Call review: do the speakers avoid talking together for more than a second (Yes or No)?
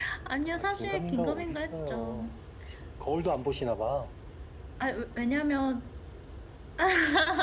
No